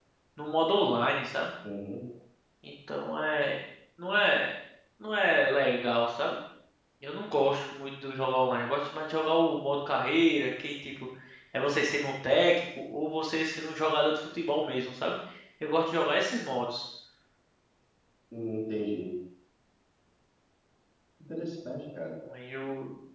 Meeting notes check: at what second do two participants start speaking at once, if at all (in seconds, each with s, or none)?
none